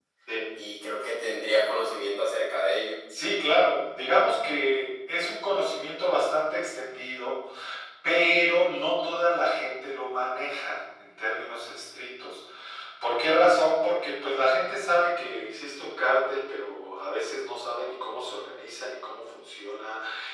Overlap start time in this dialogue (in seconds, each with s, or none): none